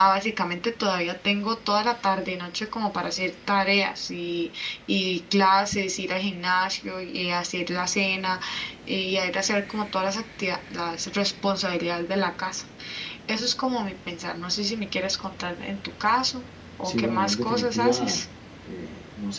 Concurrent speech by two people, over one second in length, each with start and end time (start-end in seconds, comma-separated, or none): 16.8-18.2